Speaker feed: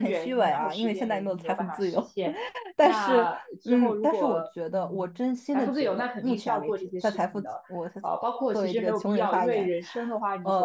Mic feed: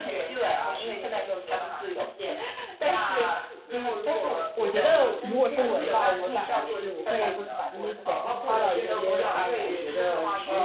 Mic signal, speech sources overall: both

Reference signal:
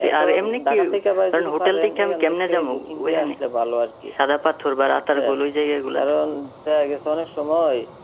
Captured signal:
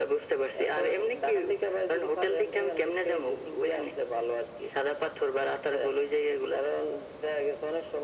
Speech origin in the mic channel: echo only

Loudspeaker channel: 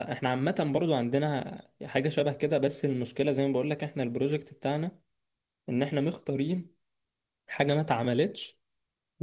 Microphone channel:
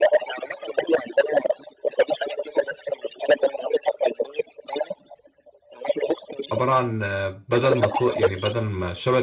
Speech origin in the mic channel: both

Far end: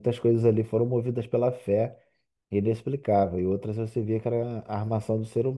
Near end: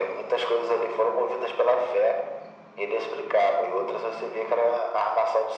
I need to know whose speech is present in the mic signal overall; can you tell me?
echo only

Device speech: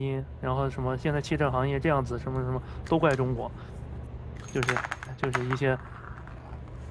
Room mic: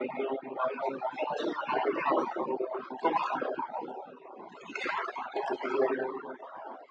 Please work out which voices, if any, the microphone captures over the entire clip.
echo only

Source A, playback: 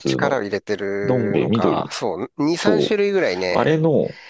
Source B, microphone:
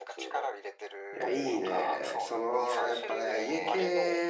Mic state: both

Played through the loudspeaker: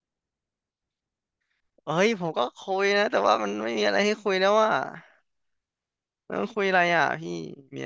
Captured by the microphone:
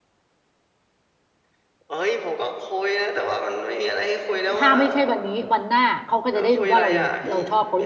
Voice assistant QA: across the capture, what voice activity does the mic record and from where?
both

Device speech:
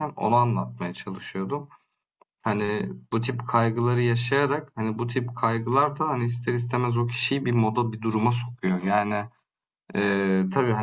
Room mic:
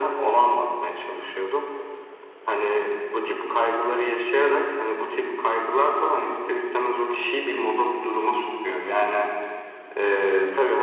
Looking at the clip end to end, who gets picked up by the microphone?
echo only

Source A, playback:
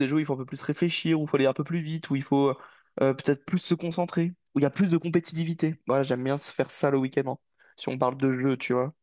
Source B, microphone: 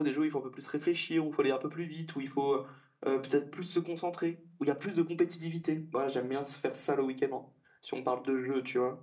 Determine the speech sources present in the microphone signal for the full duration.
echo only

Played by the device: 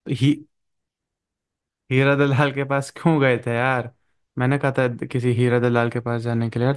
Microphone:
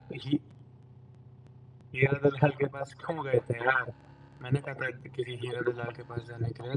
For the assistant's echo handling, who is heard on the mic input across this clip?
echo only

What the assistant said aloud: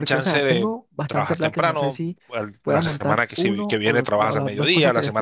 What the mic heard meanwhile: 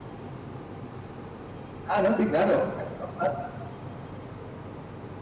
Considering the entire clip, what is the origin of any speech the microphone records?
user only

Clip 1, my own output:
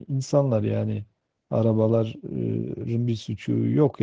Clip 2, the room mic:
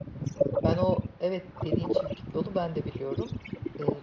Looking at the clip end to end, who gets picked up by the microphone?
both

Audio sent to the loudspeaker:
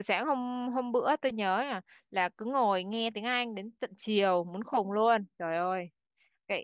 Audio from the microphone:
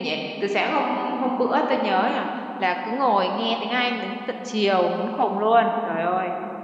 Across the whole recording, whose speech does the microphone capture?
echo only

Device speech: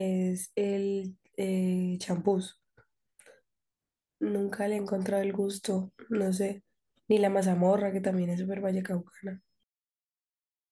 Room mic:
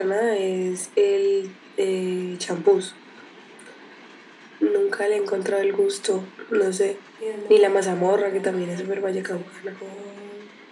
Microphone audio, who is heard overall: both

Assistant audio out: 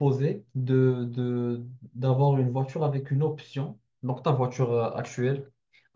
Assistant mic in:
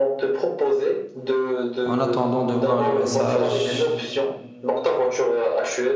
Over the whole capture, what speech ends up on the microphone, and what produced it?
both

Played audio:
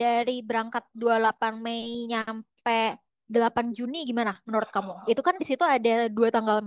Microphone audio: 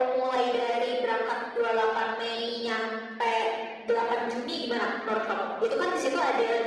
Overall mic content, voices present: echo only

